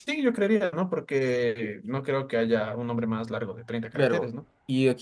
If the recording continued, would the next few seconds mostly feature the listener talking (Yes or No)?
Yes